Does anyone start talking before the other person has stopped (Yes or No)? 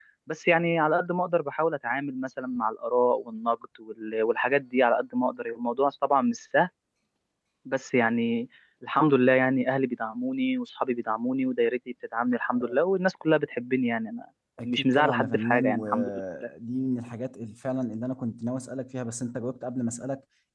Yes